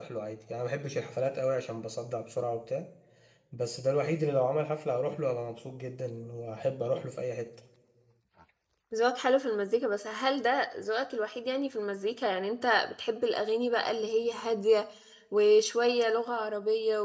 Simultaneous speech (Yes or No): No